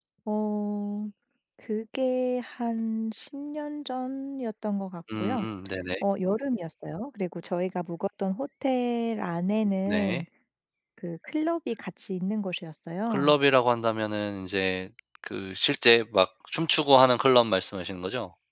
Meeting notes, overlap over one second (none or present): none